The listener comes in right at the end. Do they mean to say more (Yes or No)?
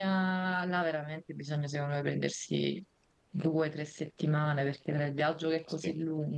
No